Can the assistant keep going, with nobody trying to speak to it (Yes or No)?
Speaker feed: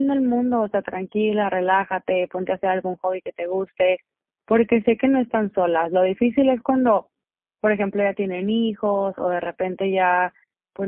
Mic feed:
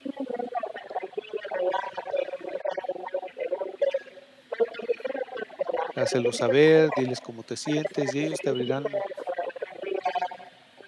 No